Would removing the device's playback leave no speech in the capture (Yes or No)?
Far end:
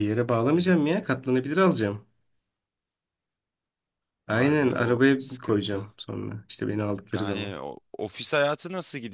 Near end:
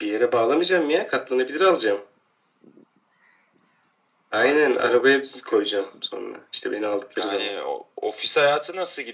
Yes